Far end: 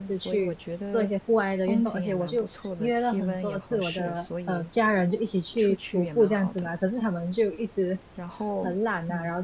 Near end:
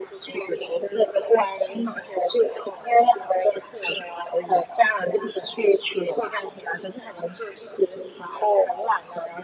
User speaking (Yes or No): No